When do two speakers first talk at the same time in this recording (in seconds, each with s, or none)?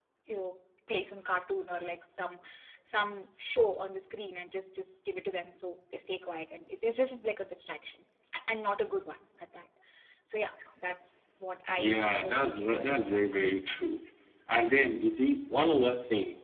11.8 s